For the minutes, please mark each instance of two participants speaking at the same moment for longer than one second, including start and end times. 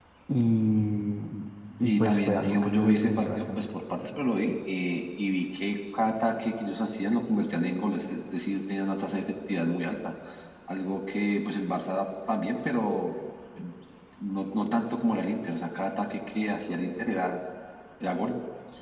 1.8-3.6

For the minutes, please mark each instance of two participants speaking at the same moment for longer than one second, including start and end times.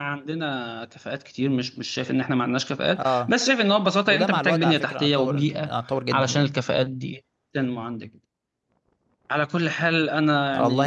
4.0-5.7

